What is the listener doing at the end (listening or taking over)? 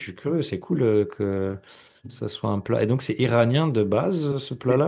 taking over